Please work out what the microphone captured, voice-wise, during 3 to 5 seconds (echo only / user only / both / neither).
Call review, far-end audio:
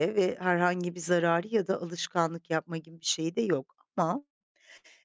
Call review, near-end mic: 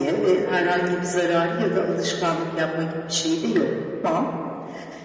echo only